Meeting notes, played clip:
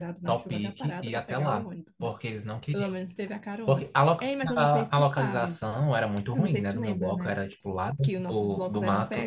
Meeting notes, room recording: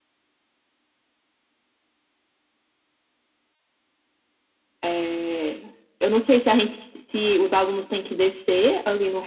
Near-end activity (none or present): present